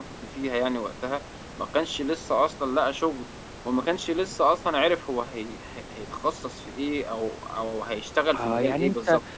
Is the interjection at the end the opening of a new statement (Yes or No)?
Yes